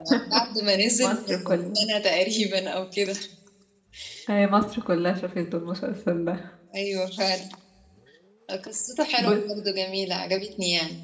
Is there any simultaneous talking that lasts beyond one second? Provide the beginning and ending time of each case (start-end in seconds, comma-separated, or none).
none